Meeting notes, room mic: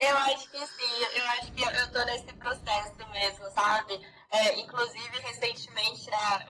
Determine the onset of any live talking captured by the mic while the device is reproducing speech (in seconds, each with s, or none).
none